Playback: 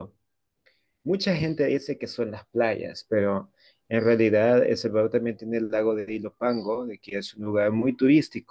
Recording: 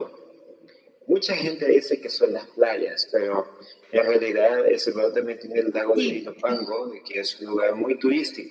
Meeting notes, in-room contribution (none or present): present